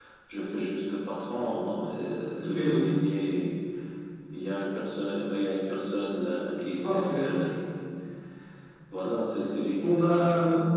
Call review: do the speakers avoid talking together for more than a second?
Yes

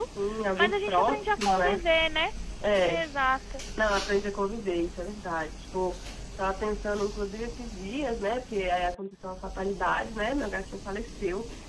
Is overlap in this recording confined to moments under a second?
No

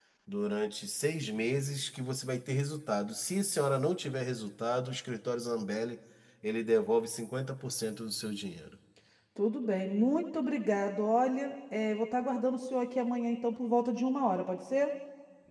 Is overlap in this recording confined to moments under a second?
Yes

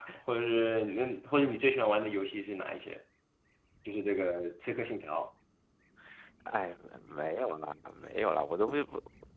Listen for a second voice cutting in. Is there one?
No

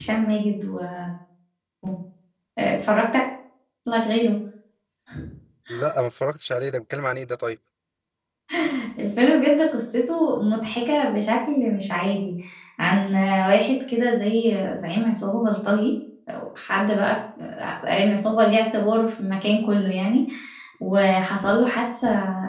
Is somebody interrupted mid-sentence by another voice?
No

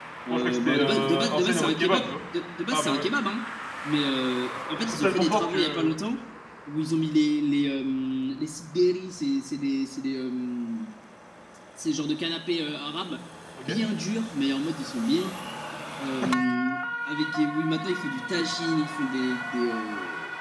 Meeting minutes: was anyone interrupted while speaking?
Yes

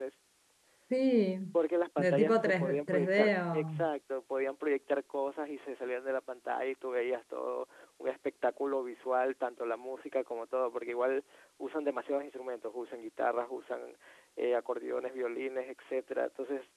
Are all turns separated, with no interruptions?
No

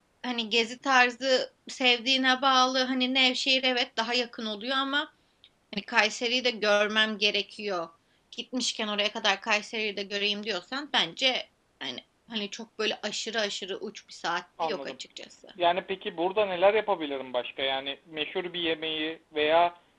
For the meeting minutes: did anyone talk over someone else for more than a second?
No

